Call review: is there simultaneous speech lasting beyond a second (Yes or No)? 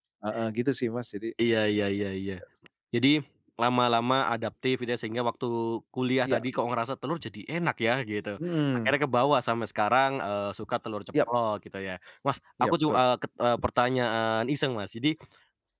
No